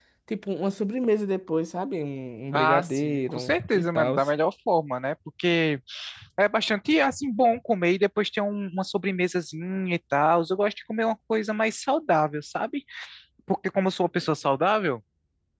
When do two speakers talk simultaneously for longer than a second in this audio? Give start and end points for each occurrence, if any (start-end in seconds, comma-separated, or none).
2.5-4.2